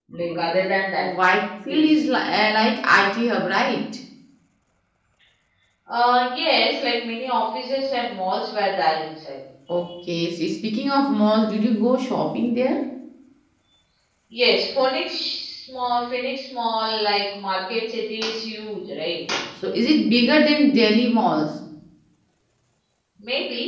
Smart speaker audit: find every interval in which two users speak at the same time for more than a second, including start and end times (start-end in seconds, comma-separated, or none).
none